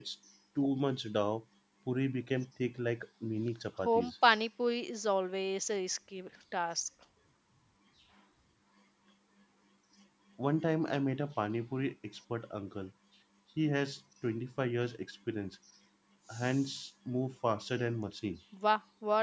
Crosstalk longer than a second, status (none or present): none